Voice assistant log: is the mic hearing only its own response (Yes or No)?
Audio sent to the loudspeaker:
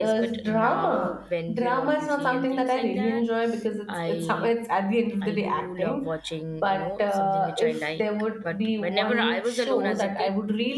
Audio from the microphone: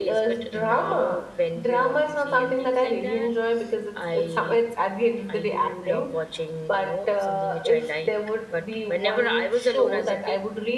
Yes